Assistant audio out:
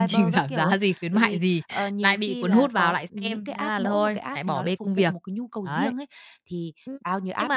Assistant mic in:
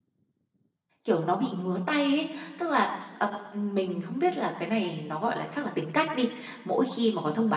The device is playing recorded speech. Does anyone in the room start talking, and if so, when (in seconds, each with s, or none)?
1.0 s